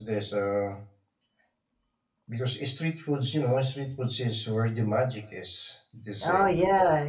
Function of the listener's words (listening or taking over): taking over